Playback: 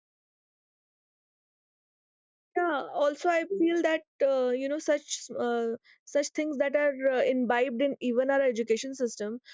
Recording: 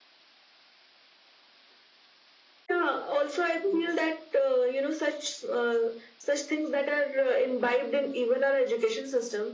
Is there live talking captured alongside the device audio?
No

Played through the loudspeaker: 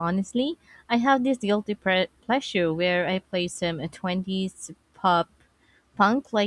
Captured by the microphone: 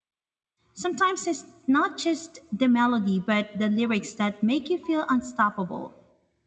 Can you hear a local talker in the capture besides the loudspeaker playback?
Yes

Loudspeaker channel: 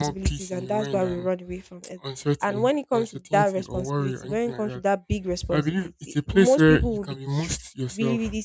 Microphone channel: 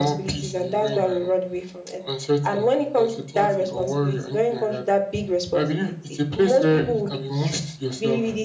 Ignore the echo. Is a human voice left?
No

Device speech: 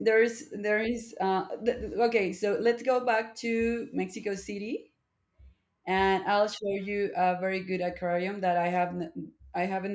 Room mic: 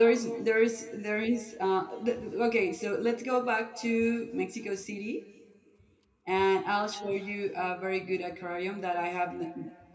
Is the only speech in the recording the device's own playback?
Yes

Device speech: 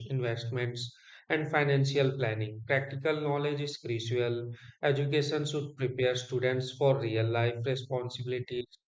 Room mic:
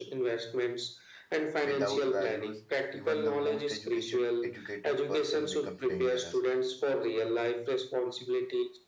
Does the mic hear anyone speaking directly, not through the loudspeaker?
Yes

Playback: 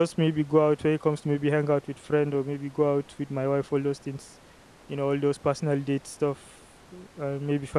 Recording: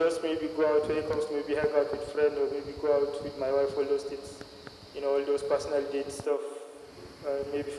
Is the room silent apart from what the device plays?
Yes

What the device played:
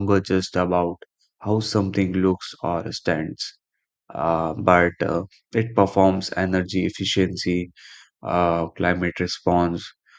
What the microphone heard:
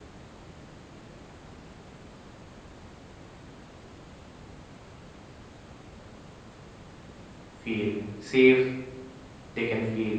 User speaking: Yes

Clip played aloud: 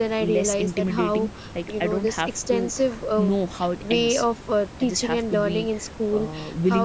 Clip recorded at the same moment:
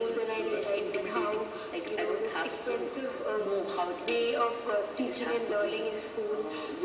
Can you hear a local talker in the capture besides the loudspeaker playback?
No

